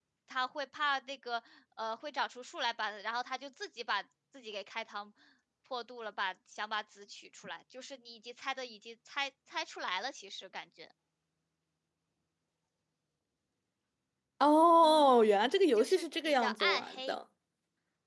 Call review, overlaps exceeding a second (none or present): present